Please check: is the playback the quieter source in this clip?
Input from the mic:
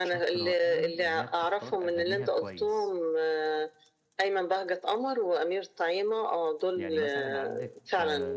No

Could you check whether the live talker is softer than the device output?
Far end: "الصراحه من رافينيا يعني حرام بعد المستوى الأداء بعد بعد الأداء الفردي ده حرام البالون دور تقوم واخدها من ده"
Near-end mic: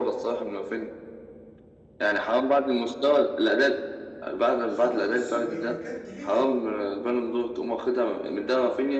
Yes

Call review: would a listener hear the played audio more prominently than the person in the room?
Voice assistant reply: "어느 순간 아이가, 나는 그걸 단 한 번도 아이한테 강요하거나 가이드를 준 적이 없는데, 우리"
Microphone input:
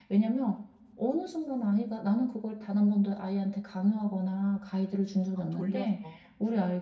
Yes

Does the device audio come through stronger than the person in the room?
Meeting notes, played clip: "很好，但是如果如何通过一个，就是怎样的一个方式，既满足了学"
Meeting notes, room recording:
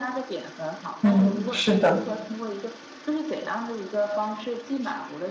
No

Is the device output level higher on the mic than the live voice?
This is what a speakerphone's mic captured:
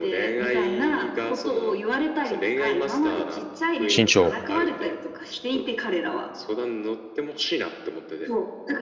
No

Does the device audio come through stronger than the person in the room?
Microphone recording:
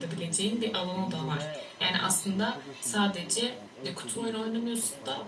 No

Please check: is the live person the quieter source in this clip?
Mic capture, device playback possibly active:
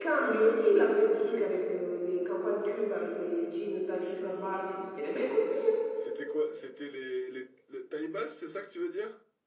No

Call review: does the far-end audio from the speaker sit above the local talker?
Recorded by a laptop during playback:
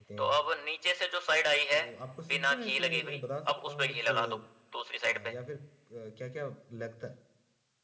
Yes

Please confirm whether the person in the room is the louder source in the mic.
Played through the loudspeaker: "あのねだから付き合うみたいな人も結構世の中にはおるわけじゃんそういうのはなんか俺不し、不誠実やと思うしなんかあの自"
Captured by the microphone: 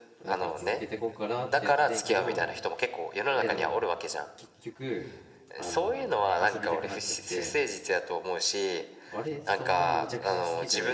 No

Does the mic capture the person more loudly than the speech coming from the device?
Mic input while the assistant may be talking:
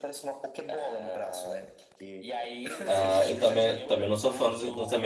Yes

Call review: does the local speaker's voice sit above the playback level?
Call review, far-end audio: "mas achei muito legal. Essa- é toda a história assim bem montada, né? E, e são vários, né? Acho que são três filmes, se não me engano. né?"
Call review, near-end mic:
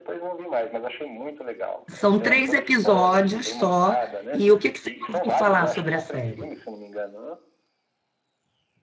Yes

